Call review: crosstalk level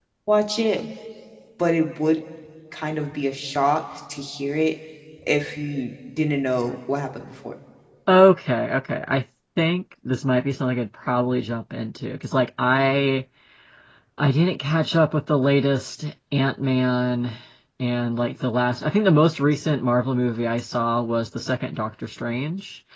none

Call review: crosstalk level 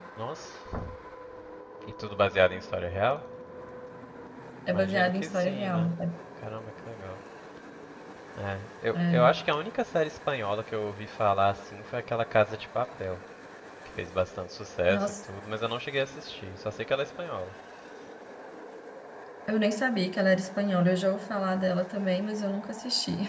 present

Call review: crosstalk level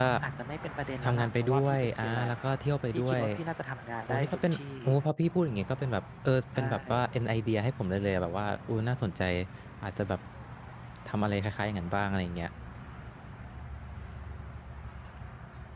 present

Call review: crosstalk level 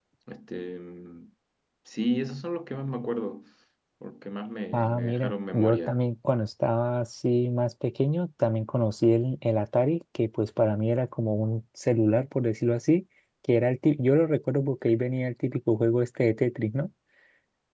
present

